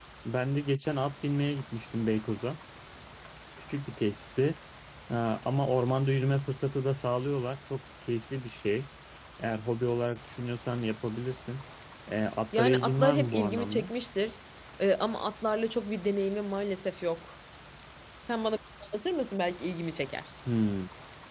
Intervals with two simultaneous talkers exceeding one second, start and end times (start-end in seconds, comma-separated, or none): 12.6-13.9